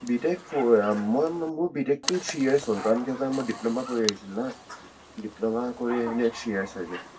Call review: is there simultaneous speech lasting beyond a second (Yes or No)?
No